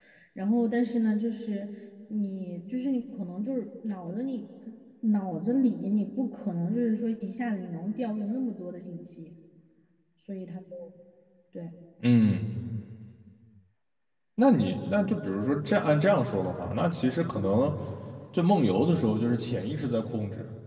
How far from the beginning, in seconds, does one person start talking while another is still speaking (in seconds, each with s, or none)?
none